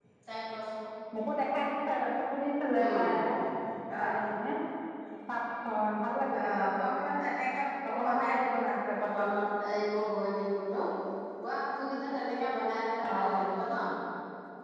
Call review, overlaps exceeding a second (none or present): present